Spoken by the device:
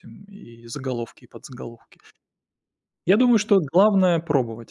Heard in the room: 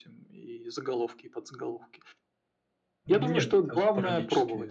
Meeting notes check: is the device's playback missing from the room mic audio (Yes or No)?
No